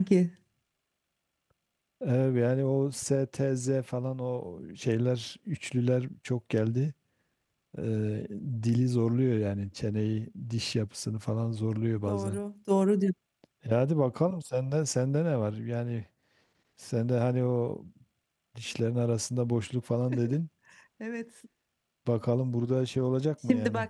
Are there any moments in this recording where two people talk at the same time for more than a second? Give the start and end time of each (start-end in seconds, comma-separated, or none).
none